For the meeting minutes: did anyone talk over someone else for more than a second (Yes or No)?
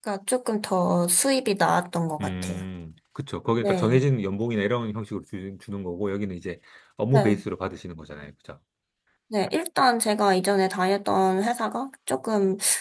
No